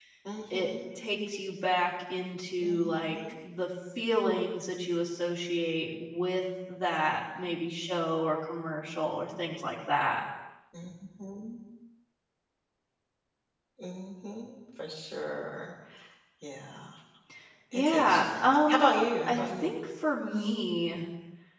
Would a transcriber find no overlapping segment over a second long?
No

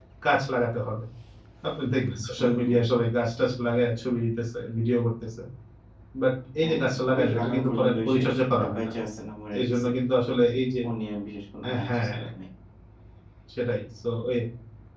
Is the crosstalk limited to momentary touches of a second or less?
No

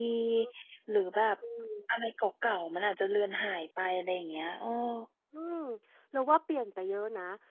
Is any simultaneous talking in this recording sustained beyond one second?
No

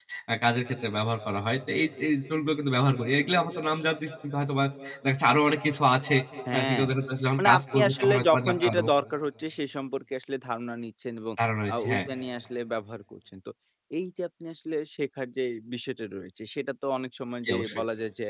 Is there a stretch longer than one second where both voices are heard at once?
Yes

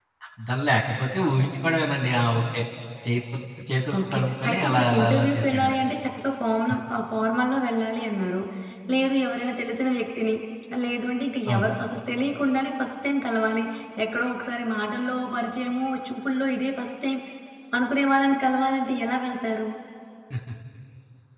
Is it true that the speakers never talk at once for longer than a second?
No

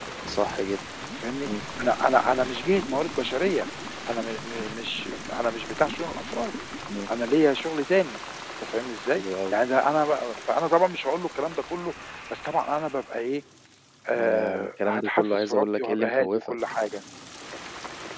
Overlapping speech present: Yes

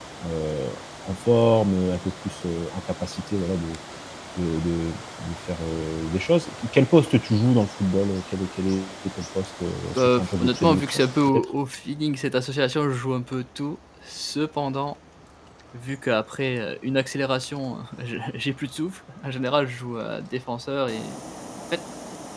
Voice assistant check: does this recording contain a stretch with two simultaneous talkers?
Yes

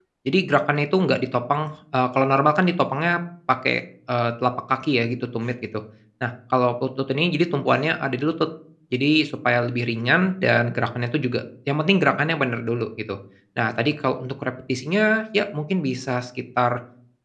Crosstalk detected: No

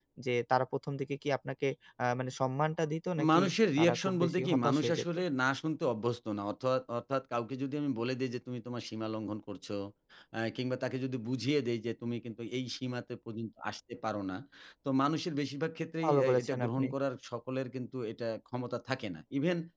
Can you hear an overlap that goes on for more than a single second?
Yes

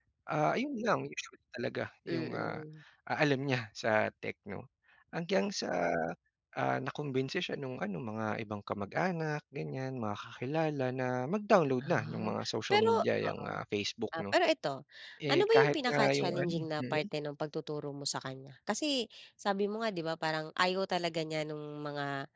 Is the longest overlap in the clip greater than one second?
Yes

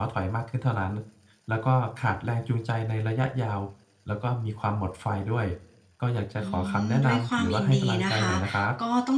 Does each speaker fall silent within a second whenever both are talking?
No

